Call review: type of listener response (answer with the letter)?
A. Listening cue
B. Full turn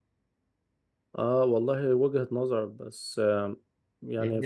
A